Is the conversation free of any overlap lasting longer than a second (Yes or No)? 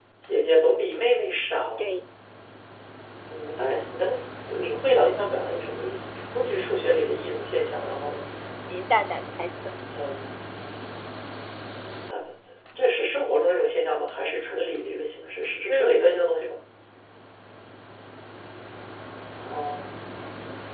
Yes